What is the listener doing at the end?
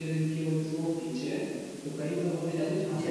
listening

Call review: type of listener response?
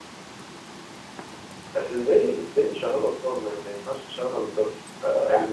taking over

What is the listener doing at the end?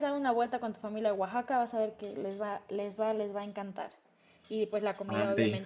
listening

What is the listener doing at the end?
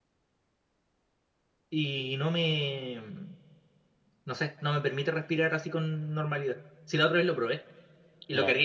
listening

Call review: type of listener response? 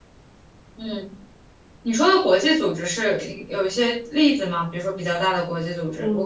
taking over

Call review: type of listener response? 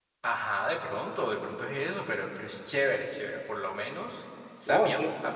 taking over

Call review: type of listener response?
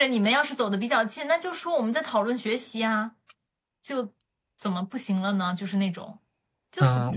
taking over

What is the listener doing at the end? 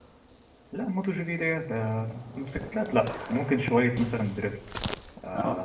listening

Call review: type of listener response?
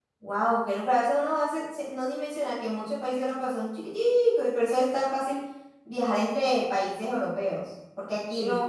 listening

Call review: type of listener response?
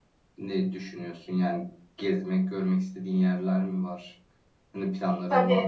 taking over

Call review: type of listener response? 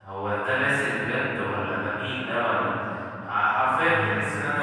taking over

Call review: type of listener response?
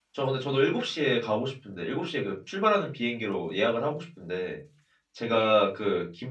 listening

